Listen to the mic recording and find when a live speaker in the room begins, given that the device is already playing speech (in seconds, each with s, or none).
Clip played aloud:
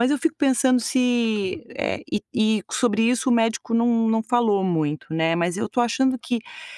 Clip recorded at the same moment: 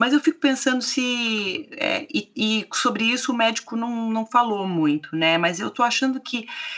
none